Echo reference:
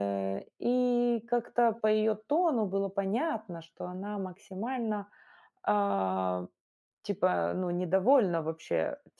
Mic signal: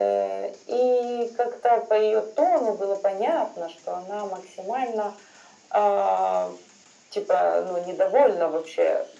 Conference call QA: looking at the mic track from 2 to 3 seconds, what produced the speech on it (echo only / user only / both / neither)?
echo only